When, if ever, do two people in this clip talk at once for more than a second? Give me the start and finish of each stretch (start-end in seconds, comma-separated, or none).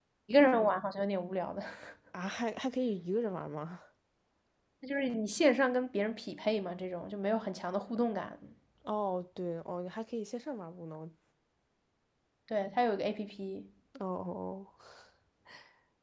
none